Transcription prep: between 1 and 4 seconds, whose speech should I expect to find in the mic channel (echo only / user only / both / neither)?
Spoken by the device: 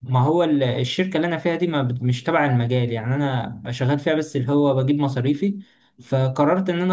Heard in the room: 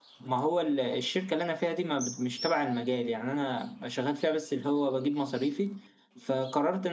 echo only